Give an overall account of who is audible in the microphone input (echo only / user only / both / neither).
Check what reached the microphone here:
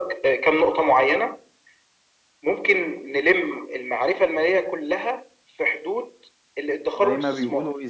both